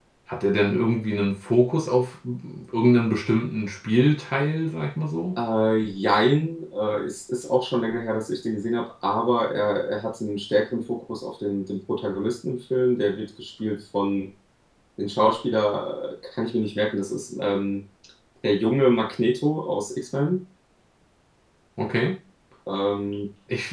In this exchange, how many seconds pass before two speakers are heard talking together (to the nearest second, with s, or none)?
none